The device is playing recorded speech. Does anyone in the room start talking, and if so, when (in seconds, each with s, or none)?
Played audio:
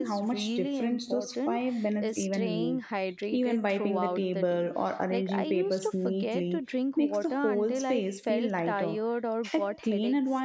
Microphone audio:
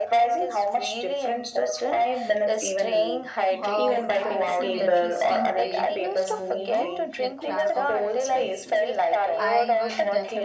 3.5 s